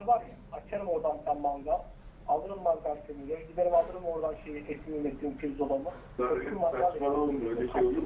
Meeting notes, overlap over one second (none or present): present